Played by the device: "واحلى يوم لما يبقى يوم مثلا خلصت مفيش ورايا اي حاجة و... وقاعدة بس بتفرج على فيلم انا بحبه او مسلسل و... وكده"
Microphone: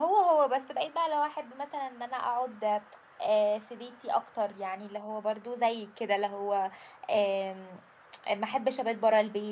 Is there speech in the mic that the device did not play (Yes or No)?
Yes